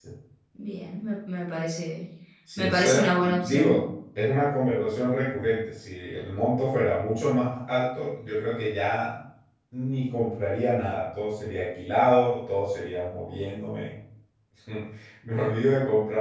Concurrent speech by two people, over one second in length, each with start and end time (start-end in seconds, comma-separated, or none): 2.6-3.8